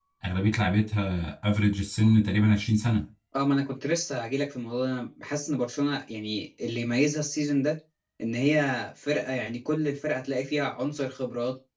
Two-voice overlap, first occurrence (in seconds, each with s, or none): none